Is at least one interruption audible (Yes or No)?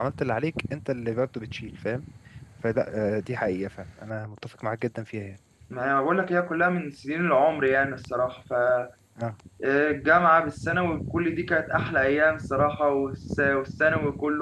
No